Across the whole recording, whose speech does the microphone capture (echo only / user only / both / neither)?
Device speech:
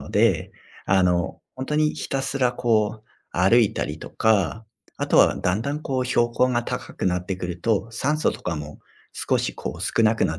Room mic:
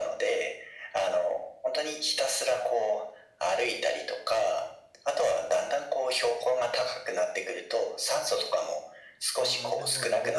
both